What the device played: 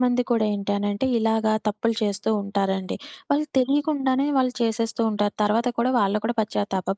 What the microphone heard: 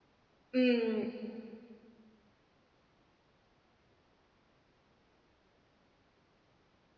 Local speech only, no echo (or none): హ్మ్.